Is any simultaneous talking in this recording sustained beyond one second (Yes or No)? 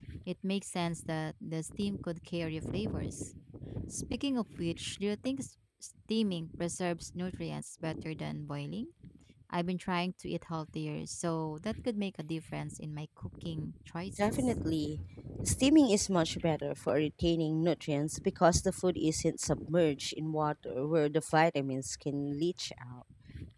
No